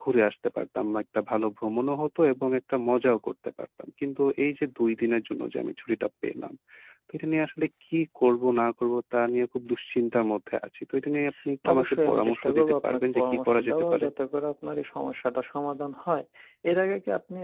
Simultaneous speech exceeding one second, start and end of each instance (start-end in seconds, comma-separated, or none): 11.7-14.1